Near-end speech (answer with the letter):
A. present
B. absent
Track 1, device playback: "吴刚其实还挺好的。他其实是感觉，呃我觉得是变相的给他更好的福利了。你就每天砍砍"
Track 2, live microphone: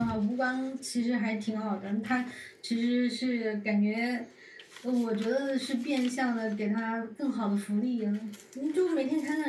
B